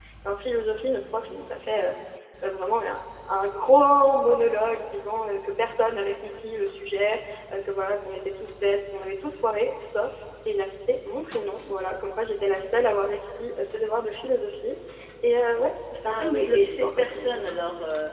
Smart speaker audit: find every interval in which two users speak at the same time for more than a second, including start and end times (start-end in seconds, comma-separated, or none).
16.1-17.5